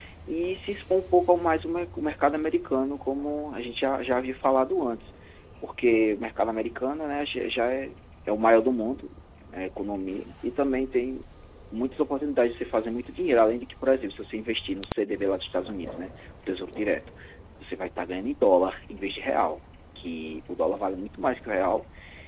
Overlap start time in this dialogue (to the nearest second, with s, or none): none